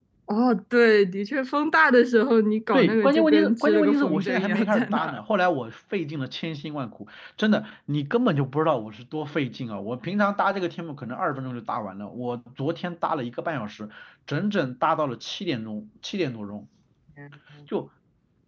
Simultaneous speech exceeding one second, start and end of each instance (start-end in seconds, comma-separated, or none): 2.7-5.2